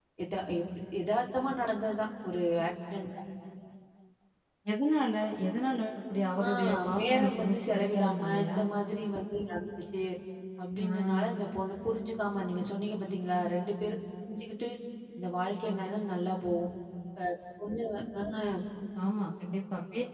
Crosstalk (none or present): present